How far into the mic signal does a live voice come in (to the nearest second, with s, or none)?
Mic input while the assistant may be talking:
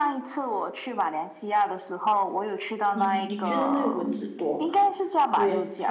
3 s